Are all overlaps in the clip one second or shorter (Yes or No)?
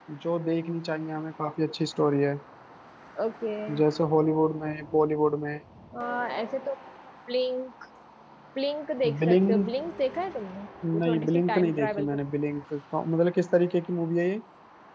No